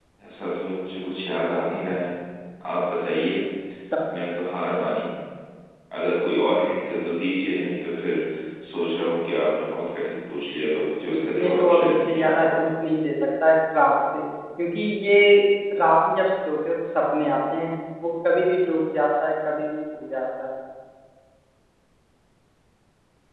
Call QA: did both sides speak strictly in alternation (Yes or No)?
No